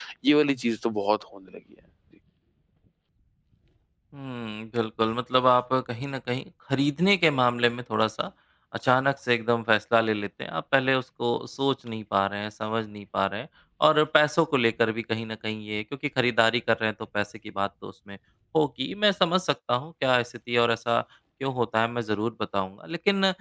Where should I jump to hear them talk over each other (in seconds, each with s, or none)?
none